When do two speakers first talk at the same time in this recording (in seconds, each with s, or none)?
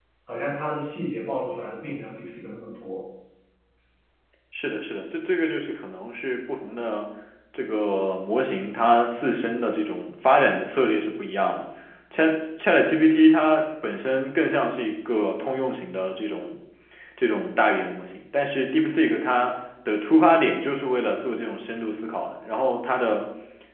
none